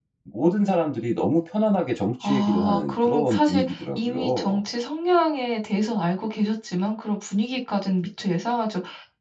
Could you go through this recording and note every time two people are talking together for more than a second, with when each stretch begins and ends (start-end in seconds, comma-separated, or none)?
2.2-4.6